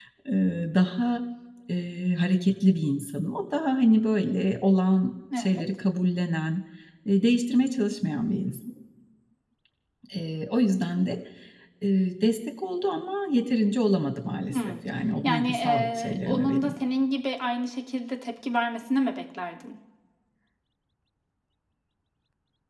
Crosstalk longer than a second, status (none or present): present